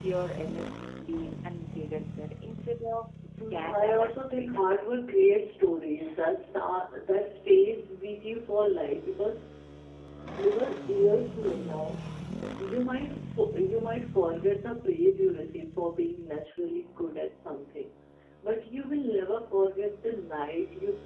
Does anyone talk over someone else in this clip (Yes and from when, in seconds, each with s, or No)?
Yes, from 3.4 s